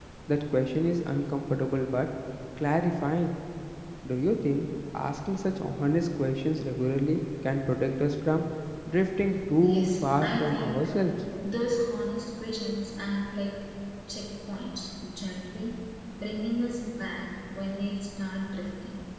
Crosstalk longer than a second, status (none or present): present